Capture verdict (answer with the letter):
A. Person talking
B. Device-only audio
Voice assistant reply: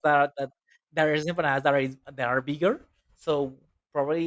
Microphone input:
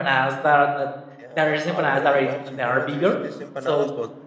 A